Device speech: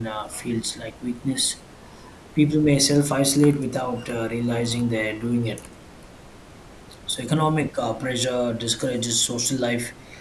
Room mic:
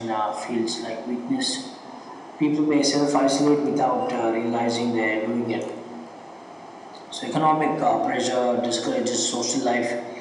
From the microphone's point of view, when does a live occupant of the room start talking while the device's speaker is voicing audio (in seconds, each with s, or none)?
none